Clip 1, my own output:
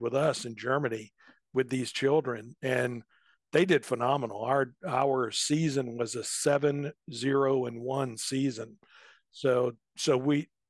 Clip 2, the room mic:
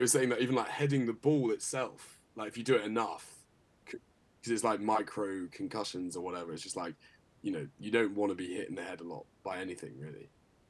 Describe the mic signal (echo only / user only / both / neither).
user only